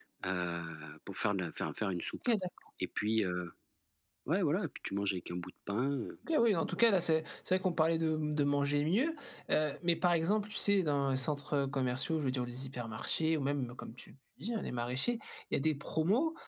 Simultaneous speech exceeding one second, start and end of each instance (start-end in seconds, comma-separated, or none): none